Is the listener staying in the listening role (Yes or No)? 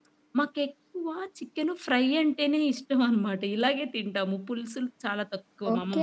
No